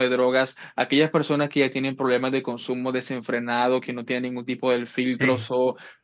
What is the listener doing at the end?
listening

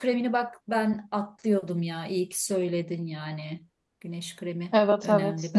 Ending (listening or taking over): taking over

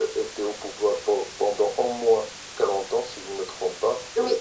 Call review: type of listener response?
taking over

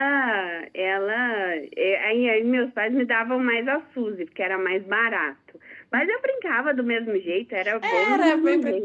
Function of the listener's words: taking over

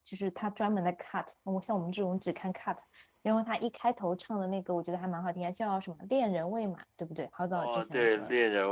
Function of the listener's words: taking over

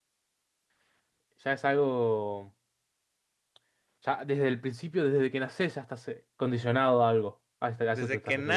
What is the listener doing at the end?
taking over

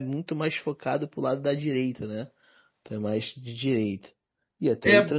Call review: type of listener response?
taking over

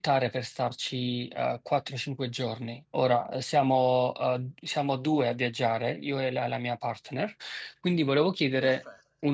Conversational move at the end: listening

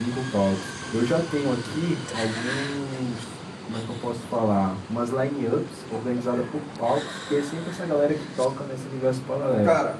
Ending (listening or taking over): taking over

